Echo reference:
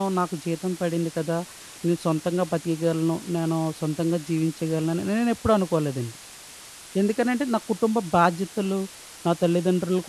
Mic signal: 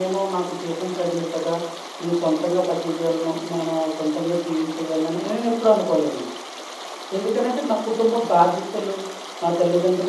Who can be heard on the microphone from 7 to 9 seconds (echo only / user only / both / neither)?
echo only